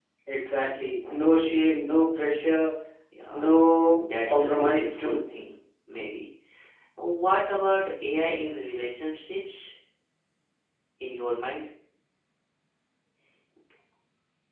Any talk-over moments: Yes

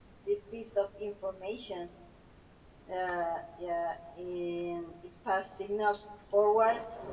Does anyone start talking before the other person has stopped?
No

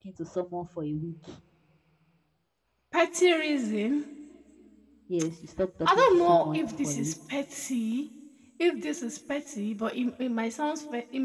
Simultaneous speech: Yes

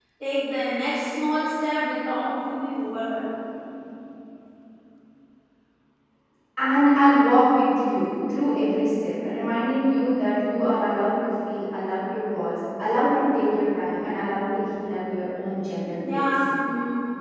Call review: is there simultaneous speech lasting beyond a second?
No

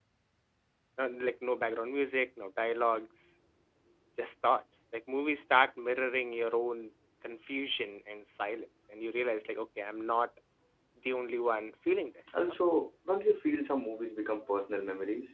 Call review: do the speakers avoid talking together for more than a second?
Yes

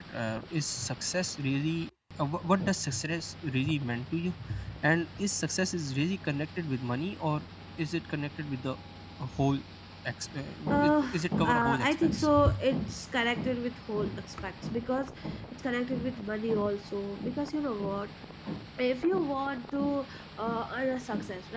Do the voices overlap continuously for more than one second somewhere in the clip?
Yes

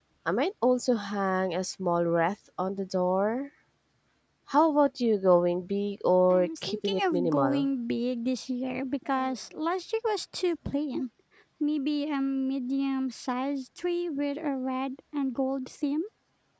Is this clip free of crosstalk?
No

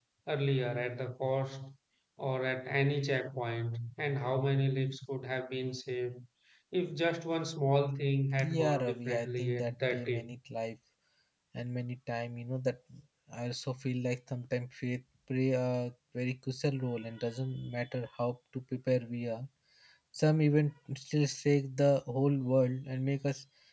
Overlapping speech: Yes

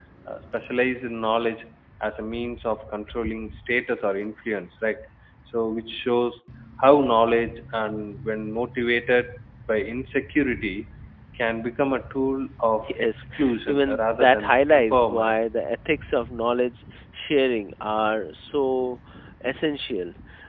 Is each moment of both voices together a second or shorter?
No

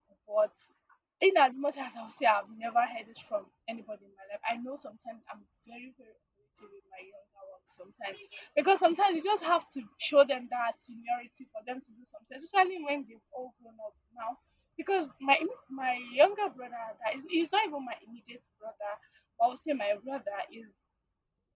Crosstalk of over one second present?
No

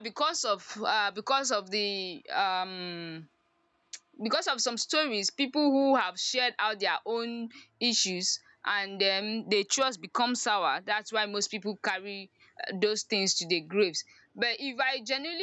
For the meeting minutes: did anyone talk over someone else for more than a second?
No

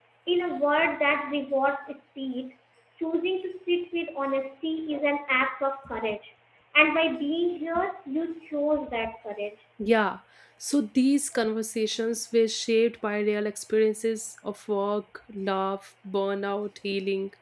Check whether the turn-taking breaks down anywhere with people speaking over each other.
No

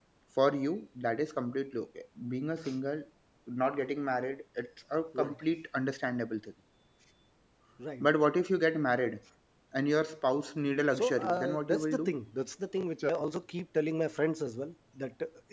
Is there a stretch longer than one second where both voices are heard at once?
Yes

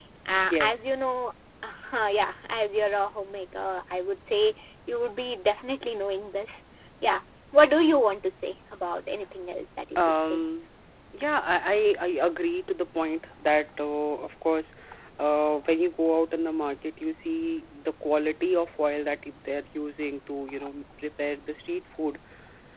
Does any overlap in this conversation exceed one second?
No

